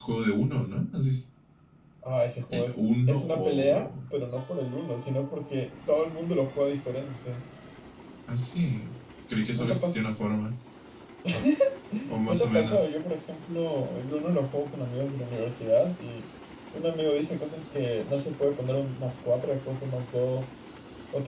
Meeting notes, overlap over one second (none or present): present